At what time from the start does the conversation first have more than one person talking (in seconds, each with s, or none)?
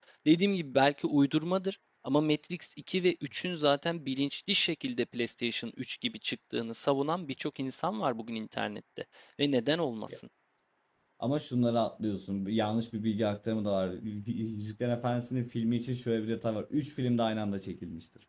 none